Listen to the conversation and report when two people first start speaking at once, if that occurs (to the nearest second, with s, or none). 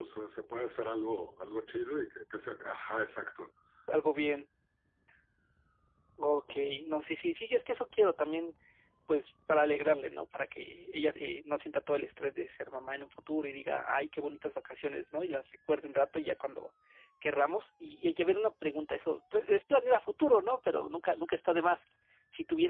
none